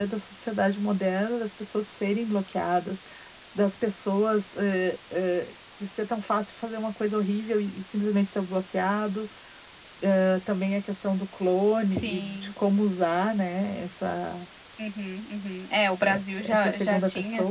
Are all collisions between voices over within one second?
No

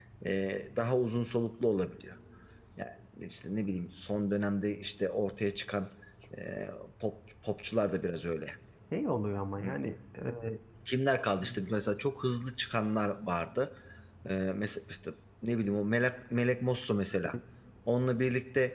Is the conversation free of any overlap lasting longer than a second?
Yes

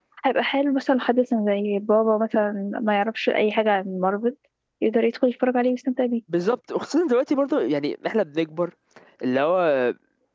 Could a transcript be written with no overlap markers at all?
Yes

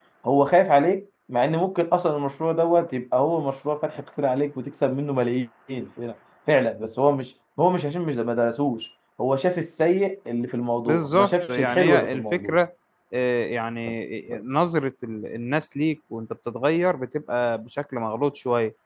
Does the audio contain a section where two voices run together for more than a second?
Yes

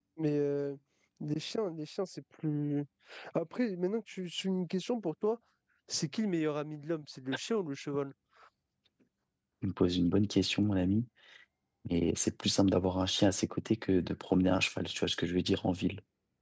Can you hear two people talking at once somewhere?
No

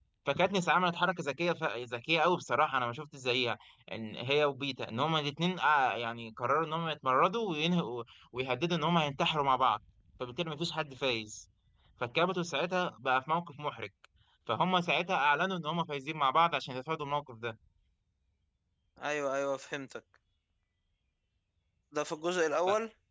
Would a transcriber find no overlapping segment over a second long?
Yes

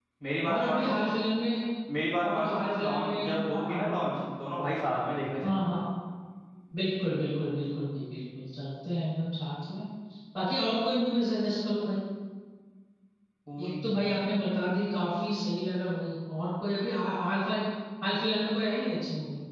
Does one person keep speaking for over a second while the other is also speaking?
Yes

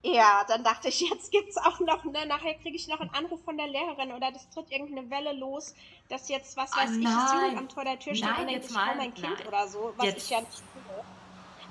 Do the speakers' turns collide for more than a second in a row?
Yes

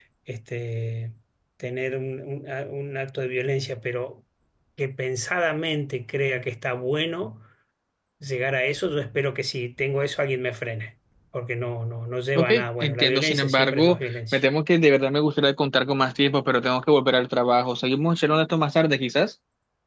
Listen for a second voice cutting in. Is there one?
Yes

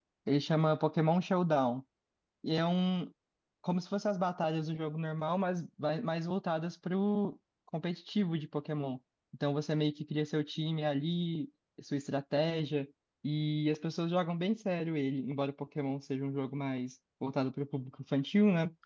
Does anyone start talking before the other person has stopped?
No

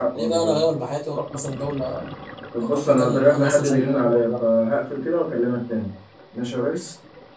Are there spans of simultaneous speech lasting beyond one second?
Yes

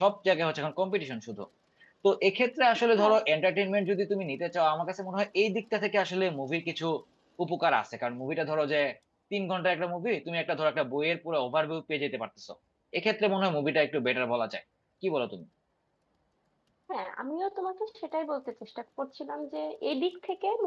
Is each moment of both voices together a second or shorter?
Yes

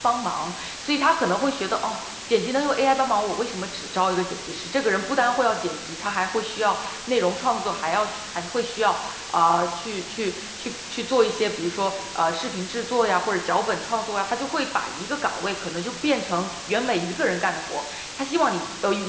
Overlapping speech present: No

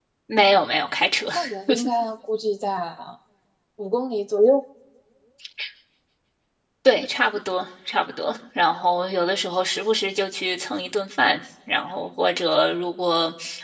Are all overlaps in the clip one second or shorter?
Yes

